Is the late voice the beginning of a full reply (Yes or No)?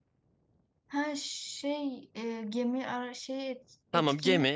Yes